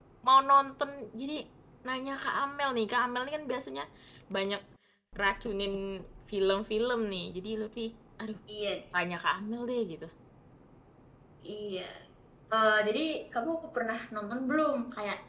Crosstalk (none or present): none